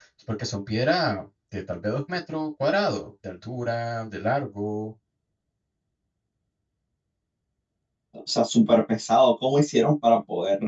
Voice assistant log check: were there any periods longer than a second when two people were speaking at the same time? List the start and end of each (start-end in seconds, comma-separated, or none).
none